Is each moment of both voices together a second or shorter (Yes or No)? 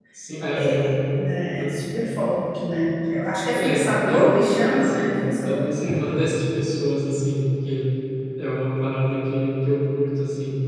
No